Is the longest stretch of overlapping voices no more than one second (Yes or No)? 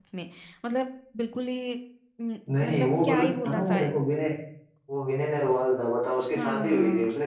No